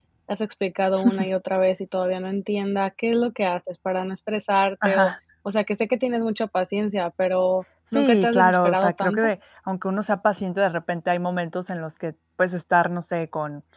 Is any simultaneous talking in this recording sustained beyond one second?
Yes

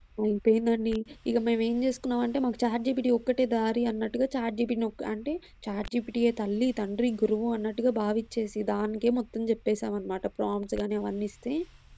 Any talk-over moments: No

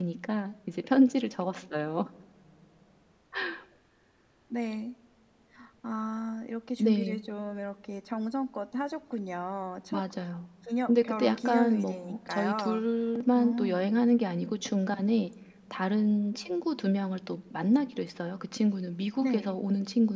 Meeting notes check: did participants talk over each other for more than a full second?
Yes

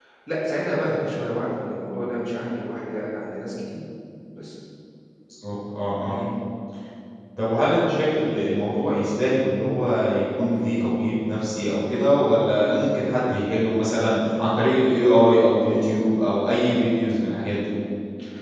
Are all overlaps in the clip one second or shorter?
Yes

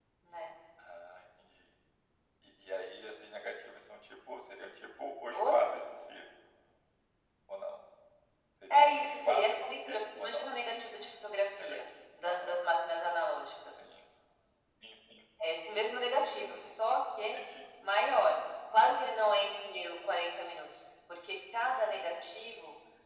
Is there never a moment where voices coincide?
No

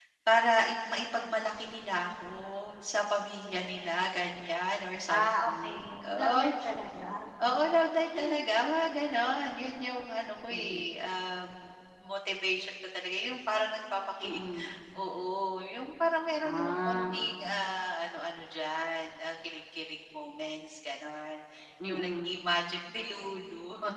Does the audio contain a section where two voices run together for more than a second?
Yes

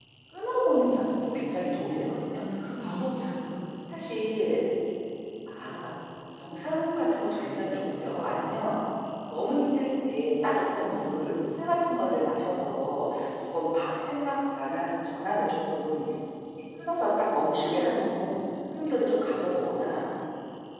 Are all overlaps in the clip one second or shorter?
Yes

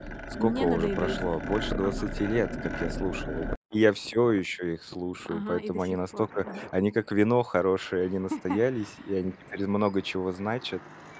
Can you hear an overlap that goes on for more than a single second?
Yes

